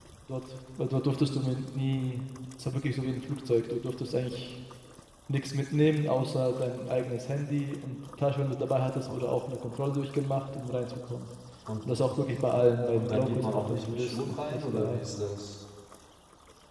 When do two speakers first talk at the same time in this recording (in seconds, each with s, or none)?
12.9 s